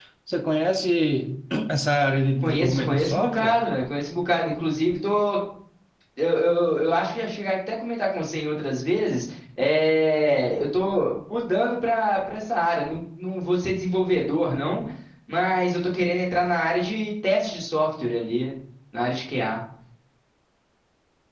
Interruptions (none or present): present